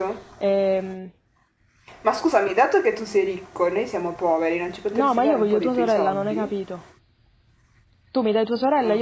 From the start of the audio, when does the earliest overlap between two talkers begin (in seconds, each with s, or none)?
4.9 s